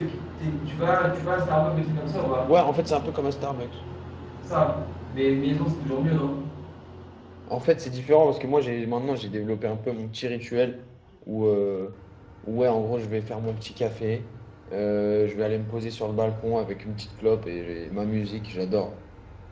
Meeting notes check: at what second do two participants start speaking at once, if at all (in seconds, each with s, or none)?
none